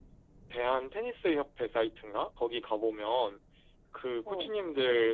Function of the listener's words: listening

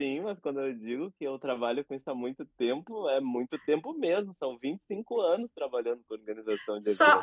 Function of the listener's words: taking over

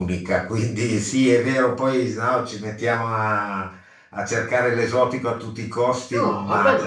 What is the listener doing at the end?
taking over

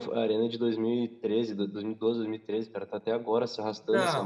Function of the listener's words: taking over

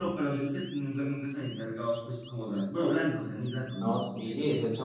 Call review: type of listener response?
taking over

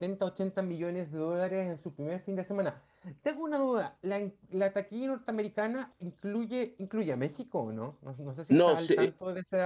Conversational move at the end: taking over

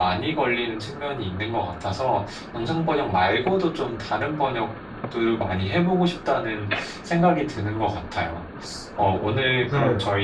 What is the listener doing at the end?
listening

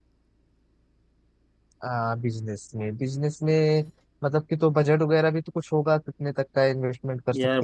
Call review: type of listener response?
taking over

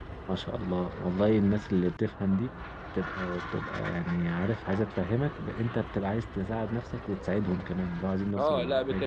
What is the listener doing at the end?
taking over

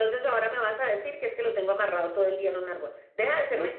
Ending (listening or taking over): listening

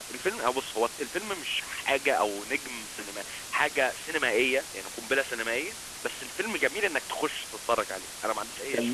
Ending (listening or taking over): taking over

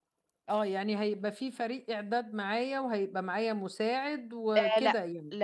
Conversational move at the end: taking over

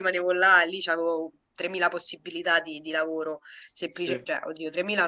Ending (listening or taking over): listening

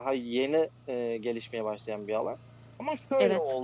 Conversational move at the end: listening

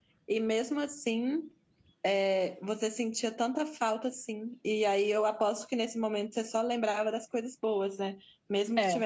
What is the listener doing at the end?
listening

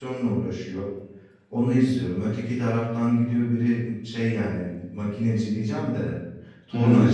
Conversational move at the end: listening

